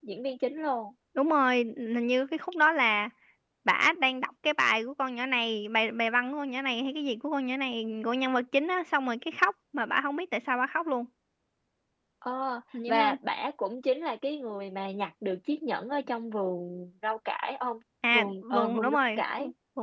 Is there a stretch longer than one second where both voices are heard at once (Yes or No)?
Yes